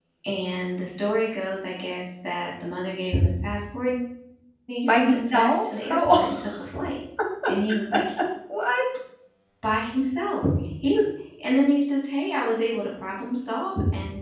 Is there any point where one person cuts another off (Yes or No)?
Yes